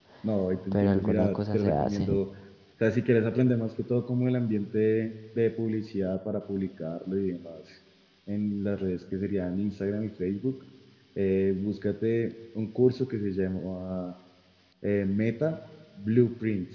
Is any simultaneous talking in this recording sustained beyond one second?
Yes, from 0.7 s

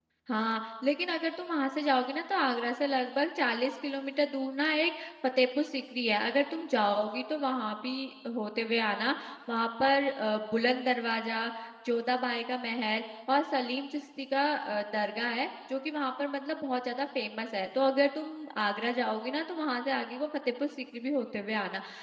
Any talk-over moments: No

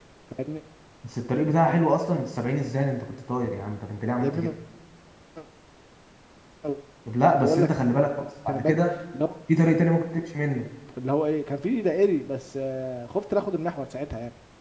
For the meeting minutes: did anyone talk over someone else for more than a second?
No

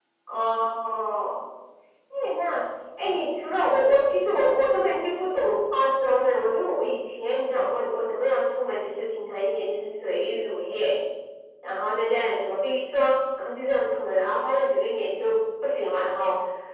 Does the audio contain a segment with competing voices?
No

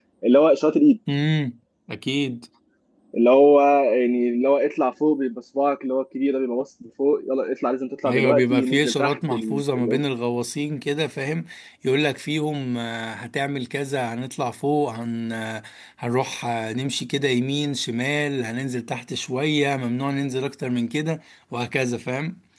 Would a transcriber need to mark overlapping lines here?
Yes, from 8.0 s

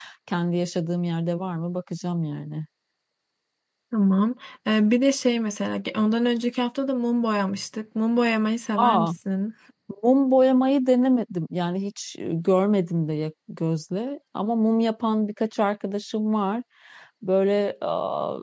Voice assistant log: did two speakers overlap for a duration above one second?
No

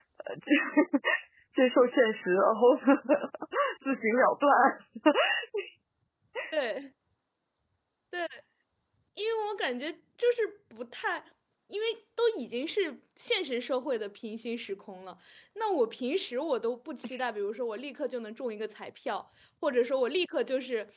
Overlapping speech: No

